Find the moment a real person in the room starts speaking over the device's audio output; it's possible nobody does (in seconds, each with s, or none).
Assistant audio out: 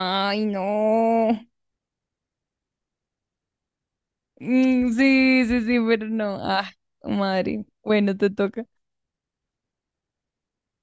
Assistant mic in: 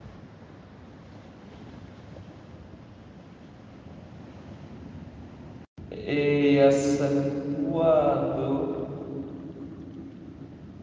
5.9 s